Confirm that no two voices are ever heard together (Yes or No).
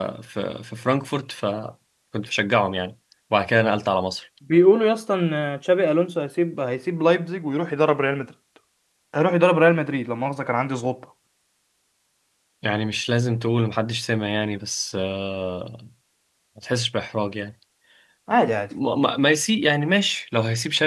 Yes